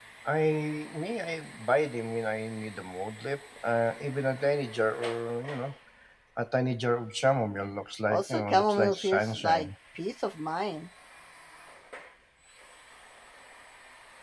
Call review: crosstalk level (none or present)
present